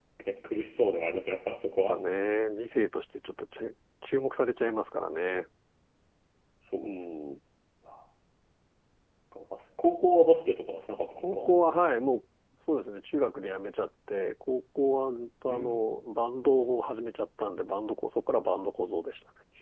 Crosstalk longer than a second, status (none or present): none